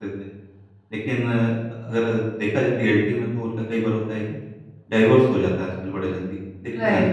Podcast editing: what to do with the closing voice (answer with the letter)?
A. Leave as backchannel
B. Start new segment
A